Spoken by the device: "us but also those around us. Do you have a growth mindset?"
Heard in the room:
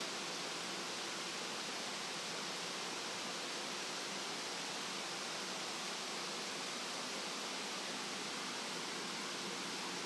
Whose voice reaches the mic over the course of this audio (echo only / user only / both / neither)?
neither